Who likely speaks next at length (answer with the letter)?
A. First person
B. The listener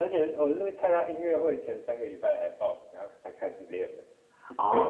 B